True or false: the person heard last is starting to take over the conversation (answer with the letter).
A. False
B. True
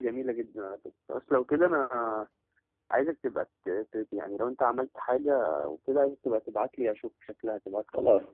B